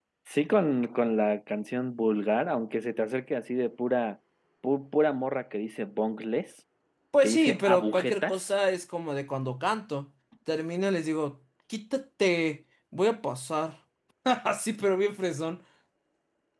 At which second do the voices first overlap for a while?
7.2 s

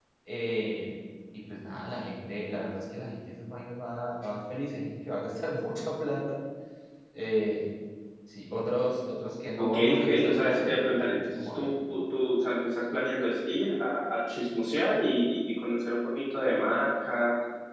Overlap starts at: 9.6 s

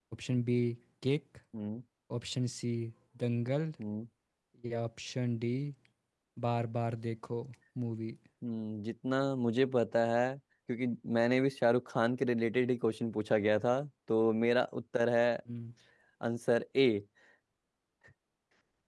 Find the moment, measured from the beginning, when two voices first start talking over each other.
none

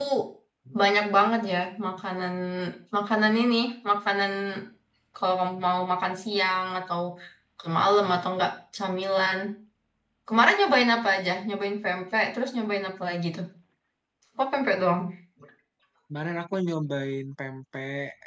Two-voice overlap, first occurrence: none

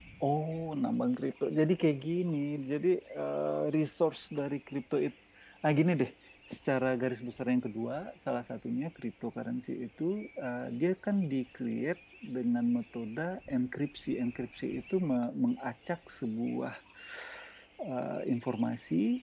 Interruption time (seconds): none

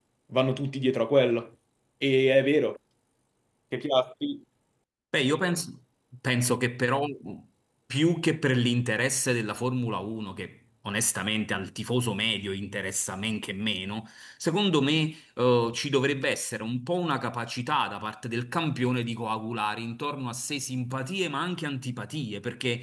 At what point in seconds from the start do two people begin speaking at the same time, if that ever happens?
none

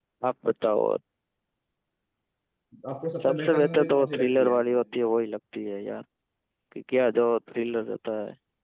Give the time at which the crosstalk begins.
3.3 s

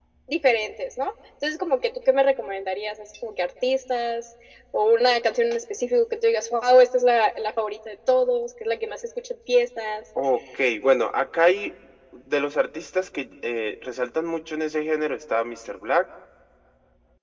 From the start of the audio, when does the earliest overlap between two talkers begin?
none

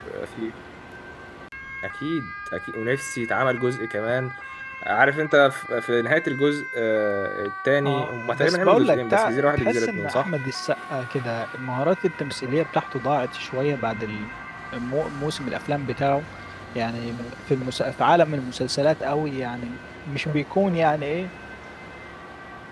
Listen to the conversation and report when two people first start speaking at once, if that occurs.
7.8 s

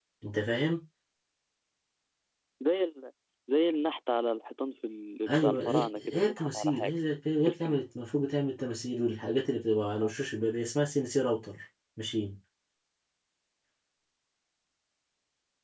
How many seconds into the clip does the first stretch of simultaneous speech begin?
5.3 s

